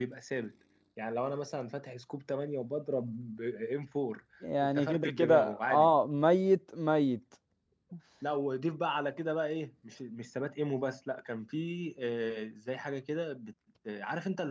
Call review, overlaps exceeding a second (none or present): present